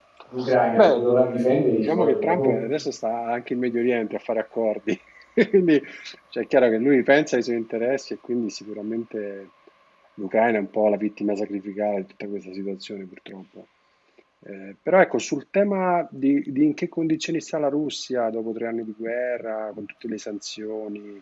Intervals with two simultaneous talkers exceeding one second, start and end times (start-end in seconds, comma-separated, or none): 0.8-2.5